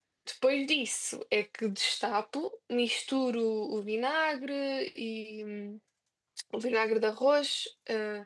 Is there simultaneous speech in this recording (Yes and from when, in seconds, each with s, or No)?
No